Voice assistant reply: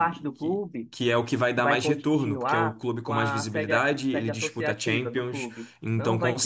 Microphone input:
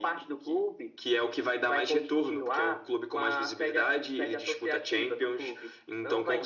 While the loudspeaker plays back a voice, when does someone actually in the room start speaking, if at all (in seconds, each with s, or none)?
none